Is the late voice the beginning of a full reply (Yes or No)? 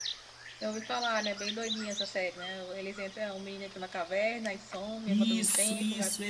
Yes